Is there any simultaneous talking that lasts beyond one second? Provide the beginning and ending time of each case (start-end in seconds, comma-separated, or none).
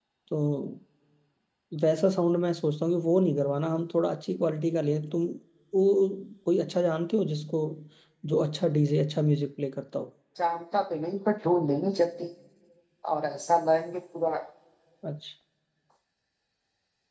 none